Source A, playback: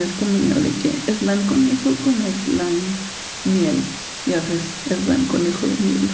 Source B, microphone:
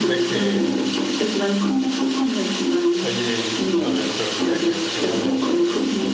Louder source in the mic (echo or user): echo